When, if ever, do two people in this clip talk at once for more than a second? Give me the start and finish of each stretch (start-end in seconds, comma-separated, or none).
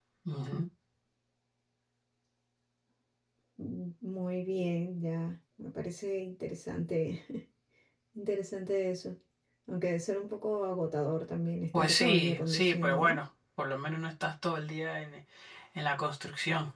11.7-13.2